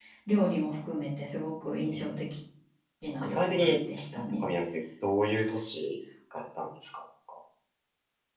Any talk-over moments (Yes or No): Yes